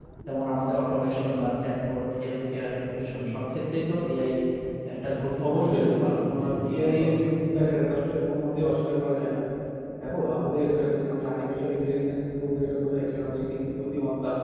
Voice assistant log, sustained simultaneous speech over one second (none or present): present